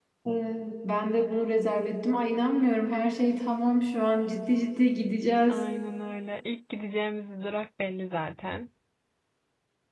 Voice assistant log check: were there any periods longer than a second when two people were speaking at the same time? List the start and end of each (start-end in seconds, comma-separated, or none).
none